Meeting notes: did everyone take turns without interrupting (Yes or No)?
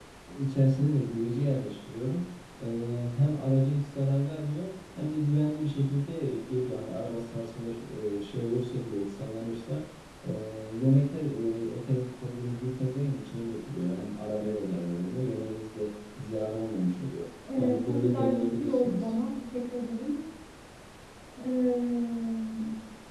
No